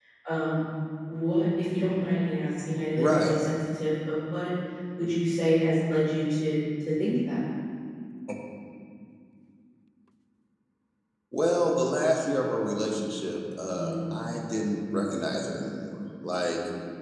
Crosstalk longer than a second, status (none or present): none